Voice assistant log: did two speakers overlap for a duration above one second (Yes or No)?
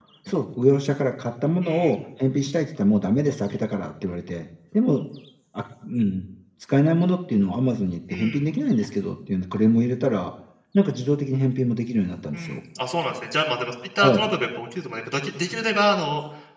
No